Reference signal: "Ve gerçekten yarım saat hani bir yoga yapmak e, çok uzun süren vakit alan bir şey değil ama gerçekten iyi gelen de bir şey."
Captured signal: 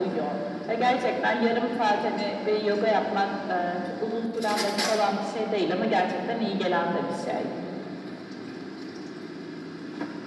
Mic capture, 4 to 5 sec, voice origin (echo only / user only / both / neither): echo only